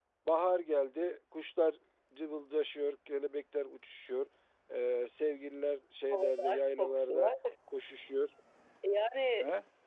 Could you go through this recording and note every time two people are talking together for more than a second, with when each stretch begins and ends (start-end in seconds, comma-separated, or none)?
6.1-7.3